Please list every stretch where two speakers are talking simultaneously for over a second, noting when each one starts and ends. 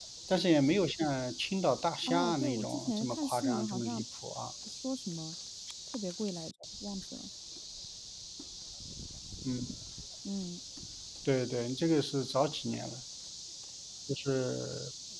2.1-4.0

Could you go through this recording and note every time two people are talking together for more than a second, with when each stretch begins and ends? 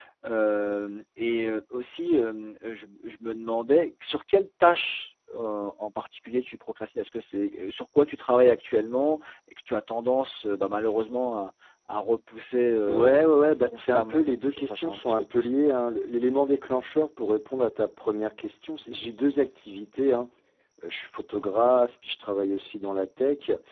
12.9-15.5

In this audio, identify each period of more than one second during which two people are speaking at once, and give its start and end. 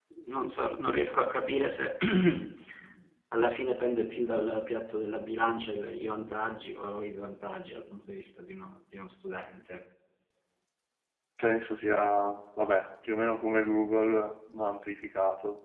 none

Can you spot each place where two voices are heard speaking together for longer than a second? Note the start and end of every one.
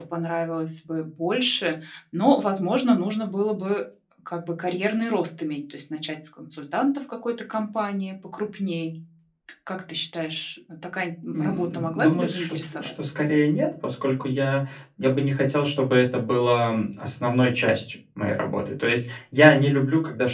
11.3-12.9

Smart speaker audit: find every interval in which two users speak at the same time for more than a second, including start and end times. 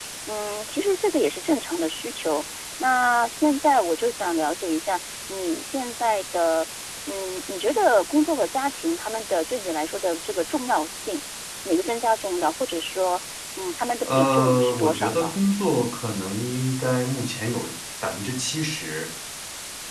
14.0-15.3

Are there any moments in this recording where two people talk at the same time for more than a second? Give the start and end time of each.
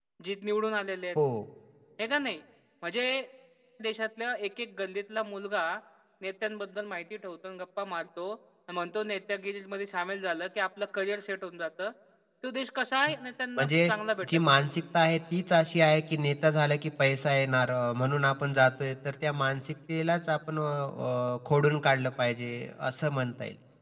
none

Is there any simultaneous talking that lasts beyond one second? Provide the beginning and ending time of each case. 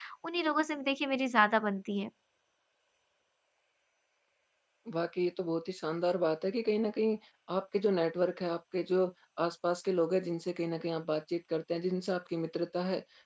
none

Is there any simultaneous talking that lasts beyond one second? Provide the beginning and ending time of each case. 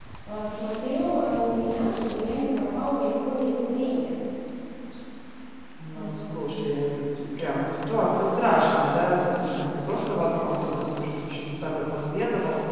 none

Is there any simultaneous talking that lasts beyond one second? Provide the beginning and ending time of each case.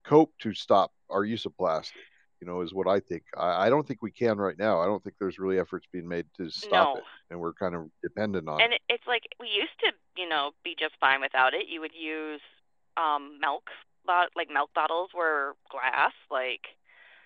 none

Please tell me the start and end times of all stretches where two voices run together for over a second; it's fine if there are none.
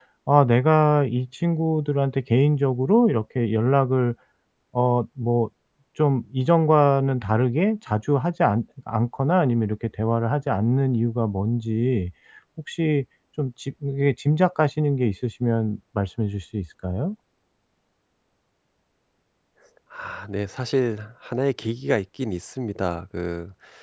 none

